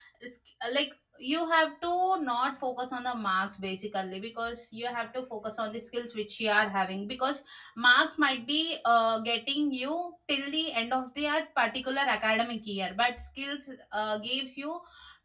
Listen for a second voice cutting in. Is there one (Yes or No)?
No